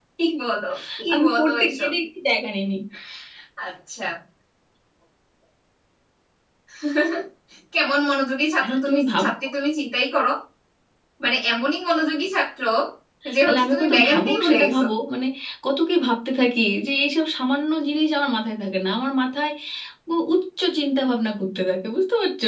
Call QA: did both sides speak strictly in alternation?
No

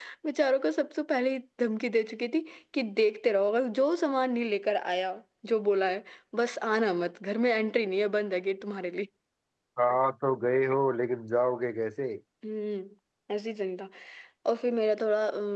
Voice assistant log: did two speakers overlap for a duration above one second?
No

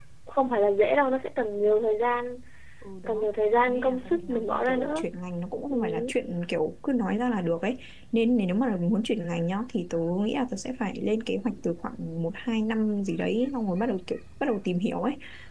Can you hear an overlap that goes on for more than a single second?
Yes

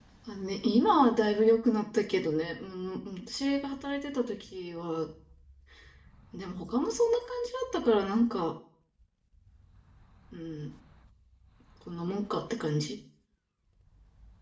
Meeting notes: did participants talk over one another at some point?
No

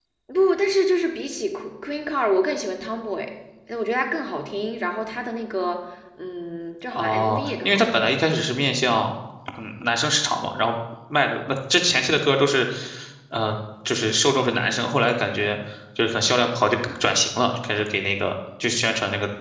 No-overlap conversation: No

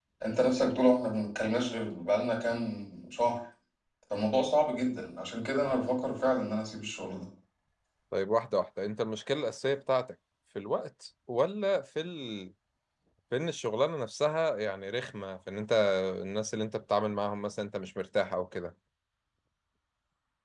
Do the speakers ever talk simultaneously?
No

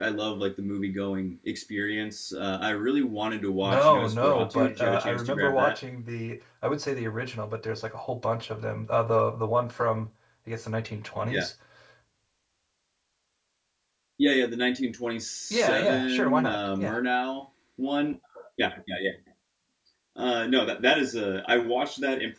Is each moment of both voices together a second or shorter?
No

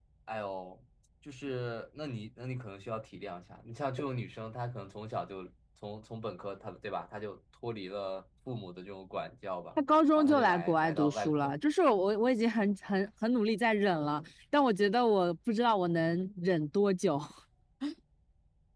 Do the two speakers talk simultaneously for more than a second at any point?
Yes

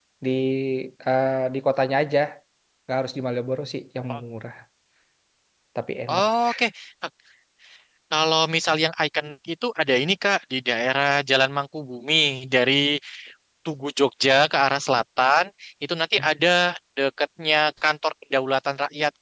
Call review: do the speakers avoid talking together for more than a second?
Yes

